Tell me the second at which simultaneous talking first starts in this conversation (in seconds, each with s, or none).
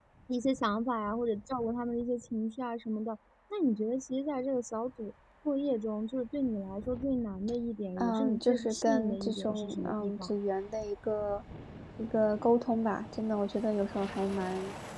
8.0 s